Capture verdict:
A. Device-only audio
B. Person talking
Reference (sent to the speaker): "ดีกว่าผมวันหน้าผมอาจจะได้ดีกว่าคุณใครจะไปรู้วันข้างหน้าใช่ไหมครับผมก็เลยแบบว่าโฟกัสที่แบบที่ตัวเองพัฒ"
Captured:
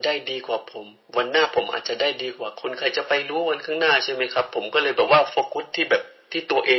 A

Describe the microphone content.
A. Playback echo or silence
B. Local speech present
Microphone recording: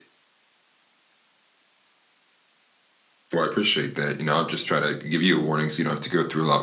B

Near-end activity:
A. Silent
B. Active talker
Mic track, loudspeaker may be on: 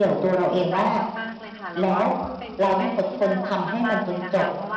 B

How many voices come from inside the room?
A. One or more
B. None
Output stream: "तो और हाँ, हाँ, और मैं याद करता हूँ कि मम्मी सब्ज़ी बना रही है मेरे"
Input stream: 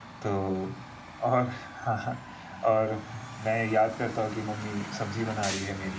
B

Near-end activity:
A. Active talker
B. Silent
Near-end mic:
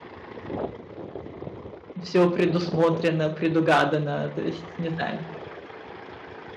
A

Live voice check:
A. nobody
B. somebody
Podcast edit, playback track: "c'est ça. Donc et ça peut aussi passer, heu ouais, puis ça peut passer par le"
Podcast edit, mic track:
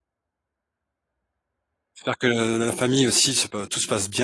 B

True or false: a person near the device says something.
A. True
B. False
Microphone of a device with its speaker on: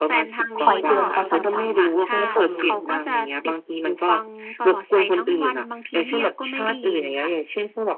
A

